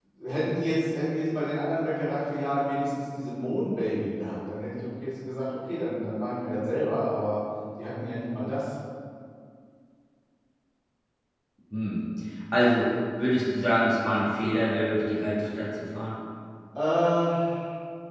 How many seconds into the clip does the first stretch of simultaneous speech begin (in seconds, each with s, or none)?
none